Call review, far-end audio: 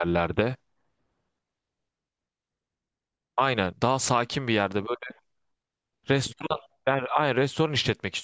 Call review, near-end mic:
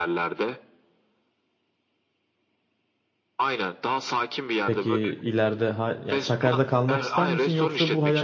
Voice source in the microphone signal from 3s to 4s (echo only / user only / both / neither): echo only